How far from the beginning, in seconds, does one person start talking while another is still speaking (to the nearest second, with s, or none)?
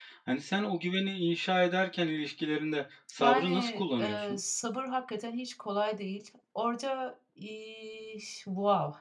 3 s